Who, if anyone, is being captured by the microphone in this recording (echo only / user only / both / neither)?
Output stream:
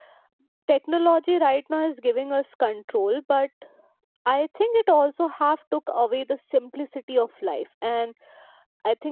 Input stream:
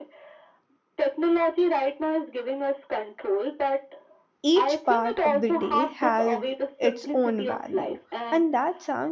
both